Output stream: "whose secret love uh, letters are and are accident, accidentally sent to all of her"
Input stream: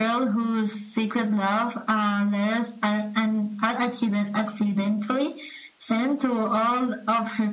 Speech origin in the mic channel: echo only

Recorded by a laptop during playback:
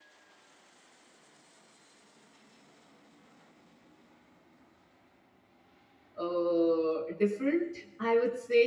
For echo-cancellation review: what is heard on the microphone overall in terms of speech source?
user only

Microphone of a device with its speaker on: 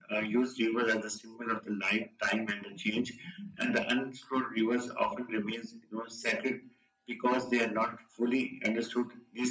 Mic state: echo only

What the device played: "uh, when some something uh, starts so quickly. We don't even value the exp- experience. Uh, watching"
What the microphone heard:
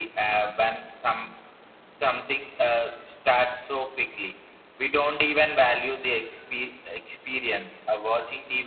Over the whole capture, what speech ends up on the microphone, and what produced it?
echo only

